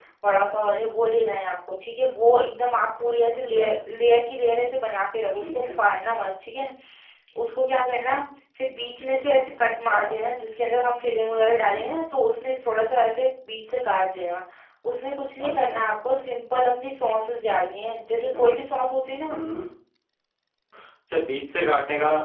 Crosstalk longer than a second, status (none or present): none